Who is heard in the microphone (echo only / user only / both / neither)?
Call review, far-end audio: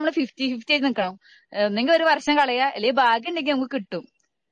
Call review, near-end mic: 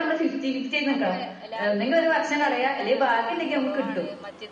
both